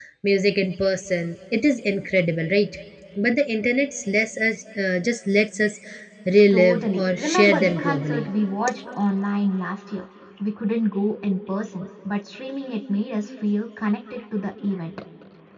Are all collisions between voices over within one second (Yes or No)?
No